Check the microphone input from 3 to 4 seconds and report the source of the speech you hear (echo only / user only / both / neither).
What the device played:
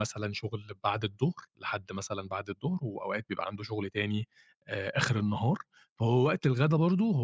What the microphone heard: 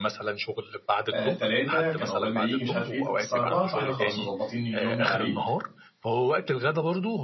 both